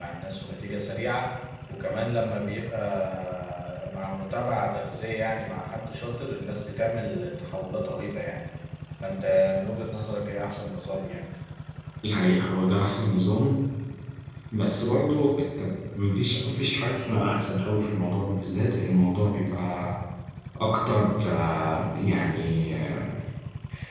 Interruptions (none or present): none